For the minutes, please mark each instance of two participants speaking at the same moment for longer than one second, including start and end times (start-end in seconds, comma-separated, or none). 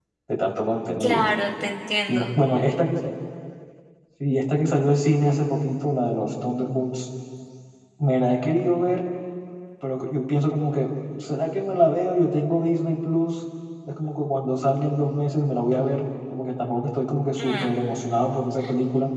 none